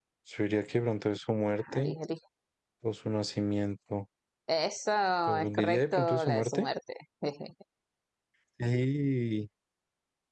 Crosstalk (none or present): present